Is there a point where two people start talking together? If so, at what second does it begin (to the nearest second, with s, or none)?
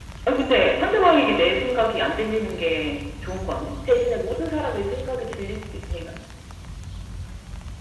none